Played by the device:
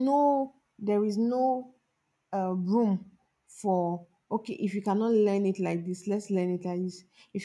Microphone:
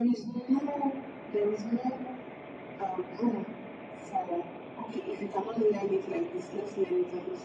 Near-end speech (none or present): none